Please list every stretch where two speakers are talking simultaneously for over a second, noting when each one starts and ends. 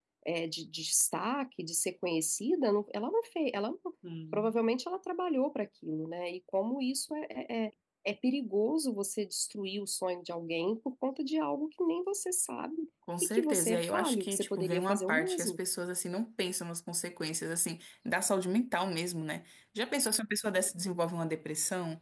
13.2-15.6

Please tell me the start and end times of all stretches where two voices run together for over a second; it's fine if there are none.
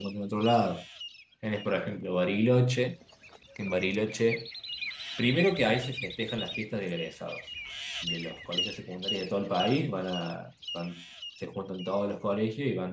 none

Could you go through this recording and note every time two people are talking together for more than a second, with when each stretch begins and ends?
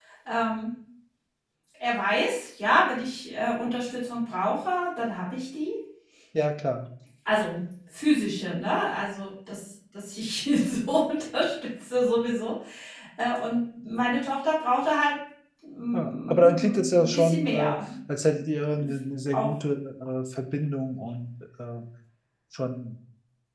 15.9-17.8

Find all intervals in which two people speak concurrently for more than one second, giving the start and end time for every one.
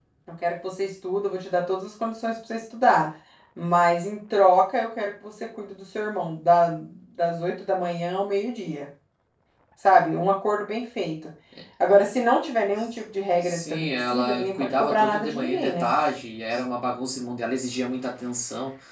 13.4-15.8

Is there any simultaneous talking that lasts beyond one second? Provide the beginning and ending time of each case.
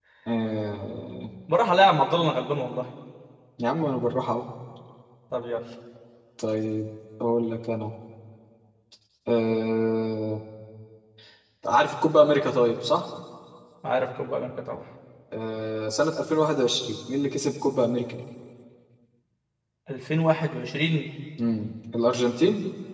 none

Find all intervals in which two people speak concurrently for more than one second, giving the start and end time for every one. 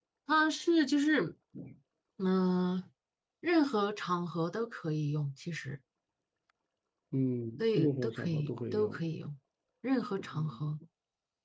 7.6-9.0

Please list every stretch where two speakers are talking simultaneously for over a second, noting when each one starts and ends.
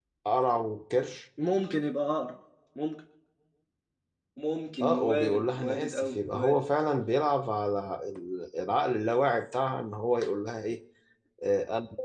4.8-6.6

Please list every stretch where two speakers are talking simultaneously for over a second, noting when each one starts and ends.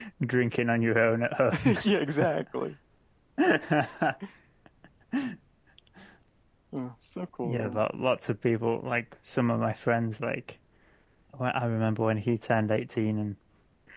none

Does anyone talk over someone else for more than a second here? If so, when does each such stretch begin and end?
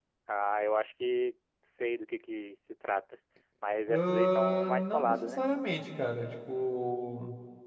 3.9-5.4

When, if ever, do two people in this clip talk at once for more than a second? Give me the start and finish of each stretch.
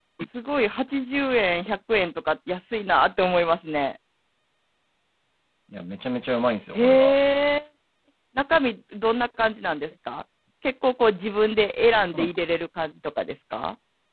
none

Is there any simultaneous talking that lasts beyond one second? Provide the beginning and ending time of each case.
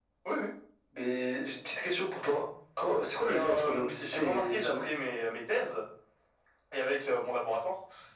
3.2-4.8

